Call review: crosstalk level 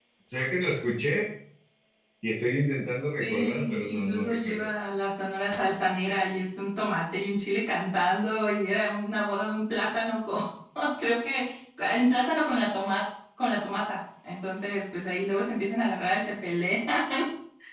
present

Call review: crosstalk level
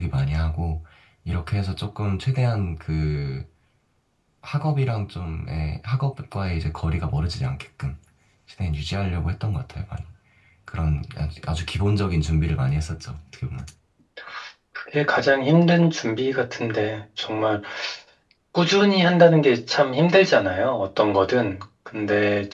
none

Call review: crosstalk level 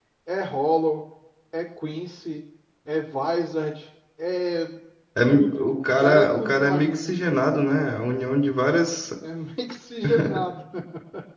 present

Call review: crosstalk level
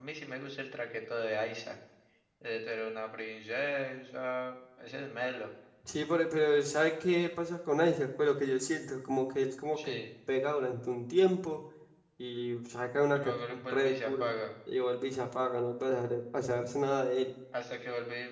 present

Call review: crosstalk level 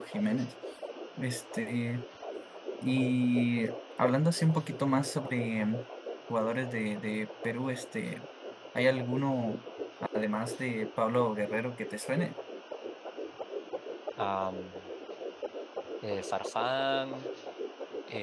none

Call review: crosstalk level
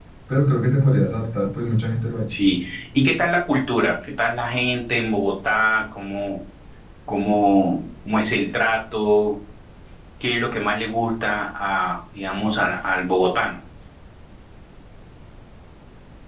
none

